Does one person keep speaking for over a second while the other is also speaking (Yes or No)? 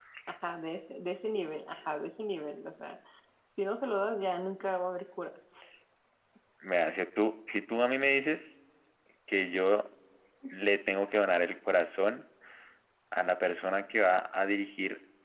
No